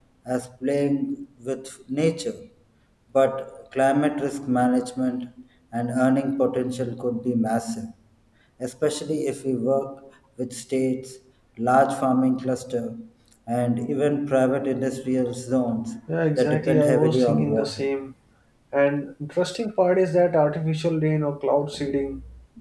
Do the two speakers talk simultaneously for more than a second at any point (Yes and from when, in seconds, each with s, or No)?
Yes, from 16.4 s